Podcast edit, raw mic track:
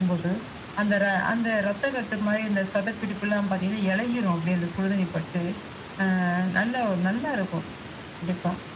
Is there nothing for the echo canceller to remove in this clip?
No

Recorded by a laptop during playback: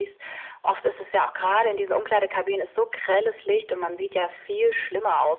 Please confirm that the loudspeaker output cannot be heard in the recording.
No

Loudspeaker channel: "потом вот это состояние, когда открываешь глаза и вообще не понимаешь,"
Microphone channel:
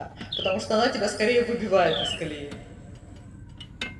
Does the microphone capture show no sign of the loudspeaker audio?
Yes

